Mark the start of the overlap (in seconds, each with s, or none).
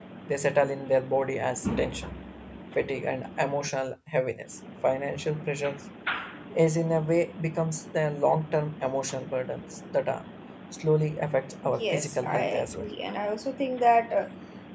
11.6 s